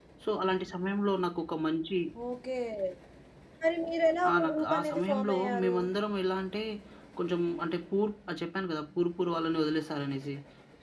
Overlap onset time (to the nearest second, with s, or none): 4 s